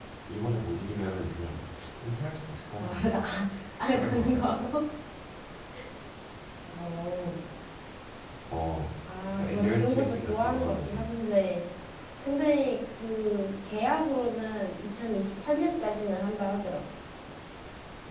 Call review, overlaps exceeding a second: present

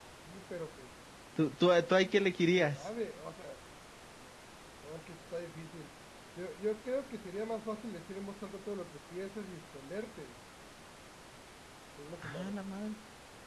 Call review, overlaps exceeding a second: none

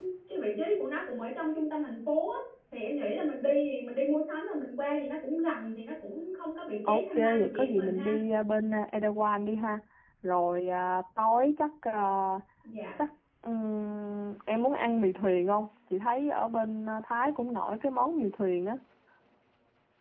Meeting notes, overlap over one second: present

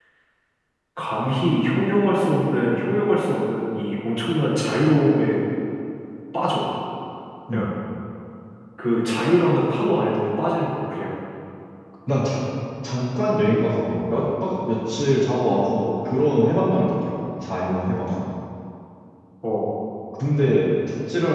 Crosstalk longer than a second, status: none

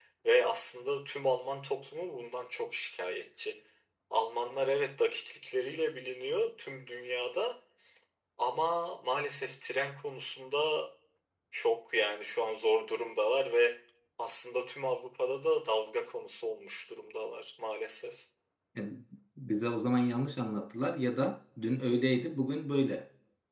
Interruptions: none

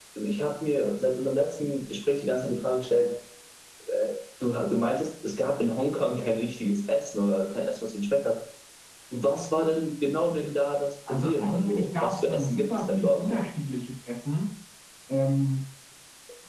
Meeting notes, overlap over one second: present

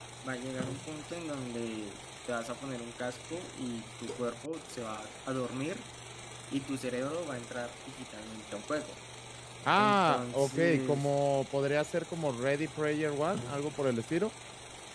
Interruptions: present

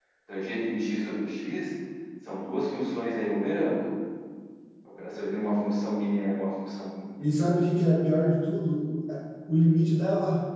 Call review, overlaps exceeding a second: none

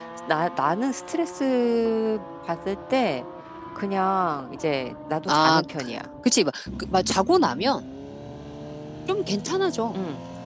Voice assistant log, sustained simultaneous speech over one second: none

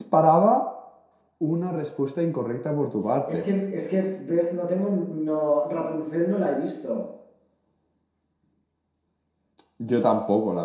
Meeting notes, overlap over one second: none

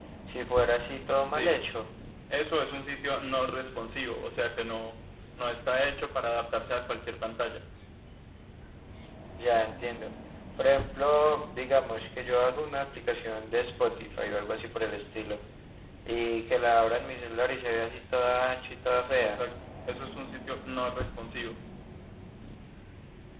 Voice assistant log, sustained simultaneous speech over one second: none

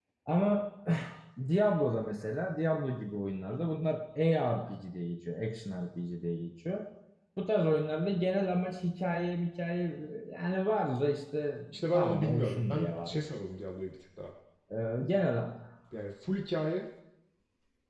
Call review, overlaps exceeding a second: present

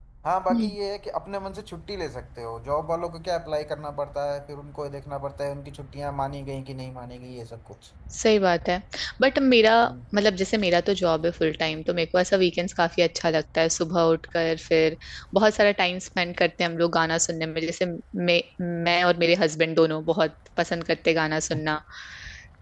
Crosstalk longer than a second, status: none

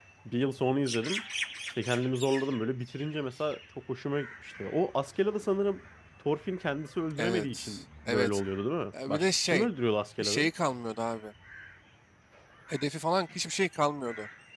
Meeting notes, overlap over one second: present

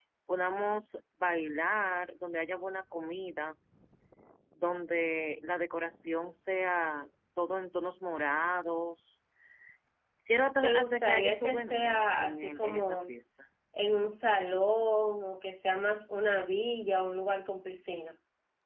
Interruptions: present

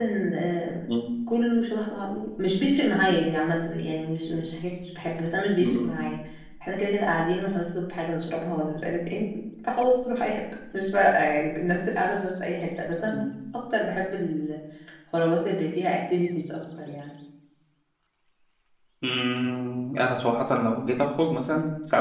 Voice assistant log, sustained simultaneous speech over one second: none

